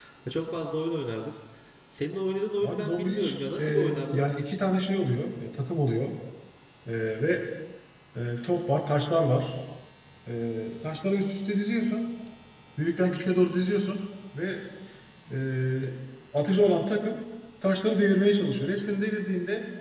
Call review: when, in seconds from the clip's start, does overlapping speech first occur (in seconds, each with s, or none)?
2.6 s